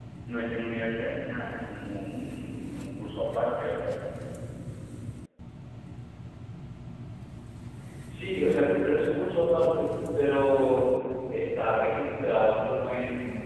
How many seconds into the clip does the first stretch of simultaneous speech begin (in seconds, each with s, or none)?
none